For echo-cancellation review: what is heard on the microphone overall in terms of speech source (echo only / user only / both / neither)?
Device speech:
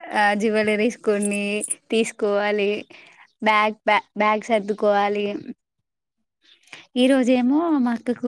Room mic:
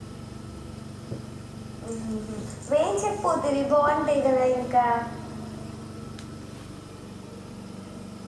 user only